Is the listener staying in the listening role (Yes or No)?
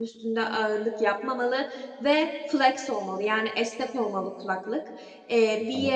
Yes